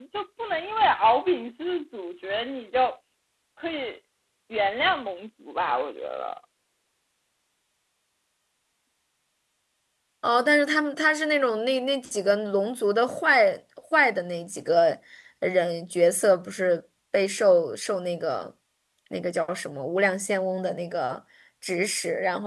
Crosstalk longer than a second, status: none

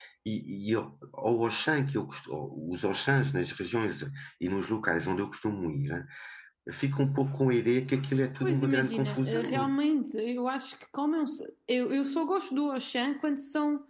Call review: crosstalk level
present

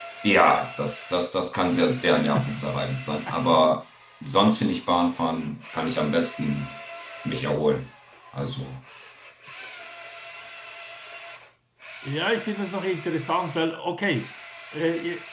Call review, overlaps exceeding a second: none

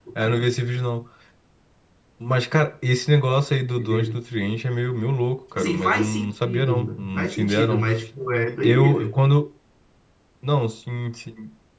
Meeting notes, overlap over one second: present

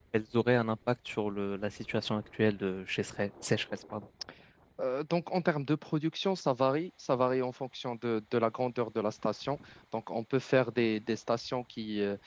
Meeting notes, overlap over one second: none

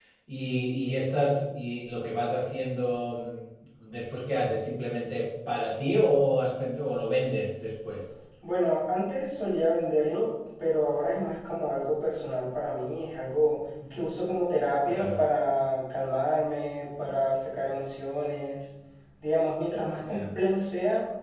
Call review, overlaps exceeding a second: none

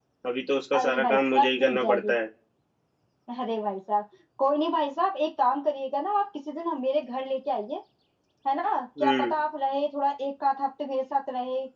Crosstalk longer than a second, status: present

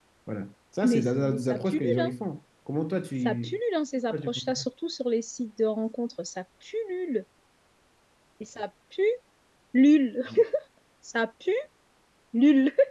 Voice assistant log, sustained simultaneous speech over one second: present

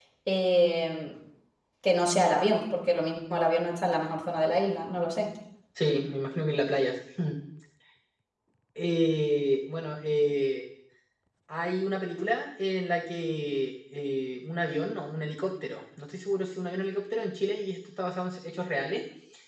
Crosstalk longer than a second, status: none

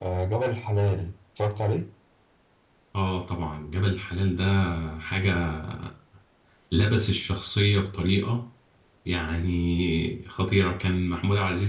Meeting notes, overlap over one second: none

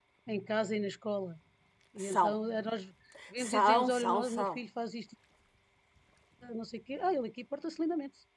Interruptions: present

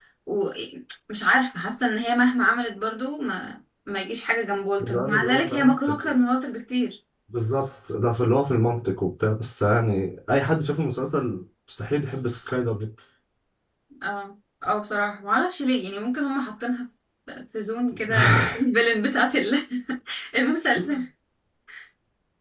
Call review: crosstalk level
present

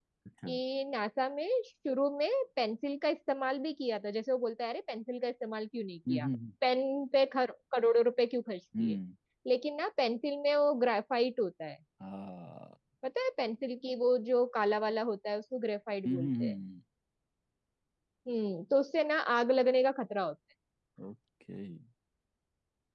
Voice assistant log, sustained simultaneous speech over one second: none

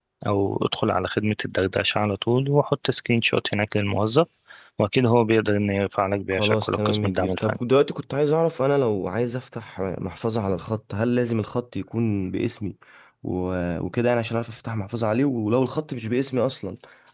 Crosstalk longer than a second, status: present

